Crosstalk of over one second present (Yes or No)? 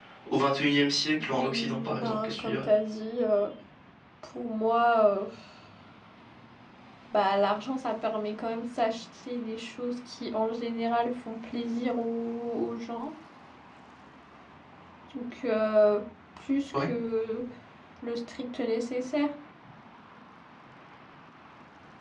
Yes